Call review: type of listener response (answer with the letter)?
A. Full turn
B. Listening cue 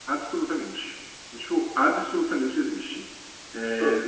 B